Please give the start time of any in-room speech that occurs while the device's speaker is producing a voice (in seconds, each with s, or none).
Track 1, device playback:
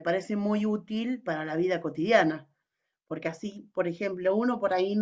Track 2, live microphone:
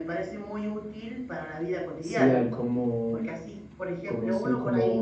2.0 s